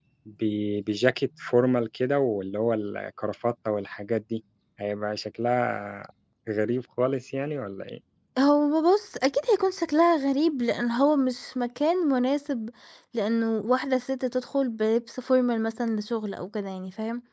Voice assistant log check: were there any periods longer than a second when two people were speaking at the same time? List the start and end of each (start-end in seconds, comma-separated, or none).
none